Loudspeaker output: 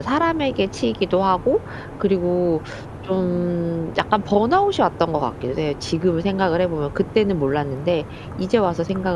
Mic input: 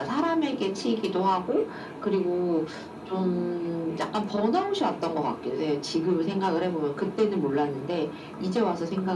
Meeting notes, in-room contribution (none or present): none